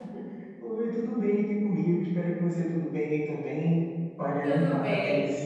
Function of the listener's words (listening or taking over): listening